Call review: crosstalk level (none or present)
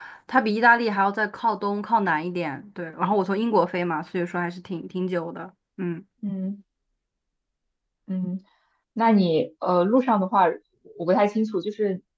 none